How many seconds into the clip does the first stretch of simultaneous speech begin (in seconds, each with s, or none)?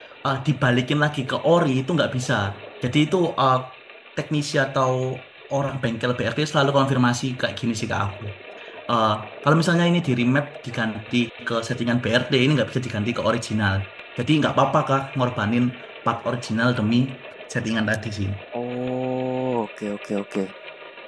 none